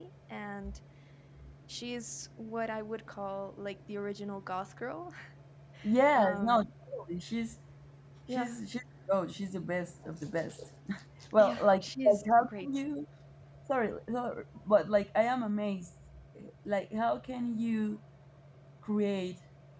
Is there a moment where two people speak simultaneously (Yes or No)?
Yes